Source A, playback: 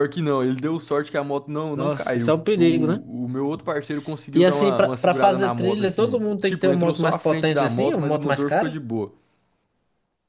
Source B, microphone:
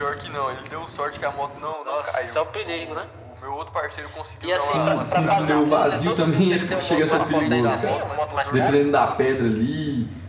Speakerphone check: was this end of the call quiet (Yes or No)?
No